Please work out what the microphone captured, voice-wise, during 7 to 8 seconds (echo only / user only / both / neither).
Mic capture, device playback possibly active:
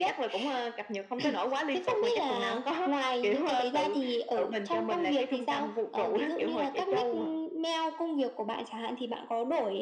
echo only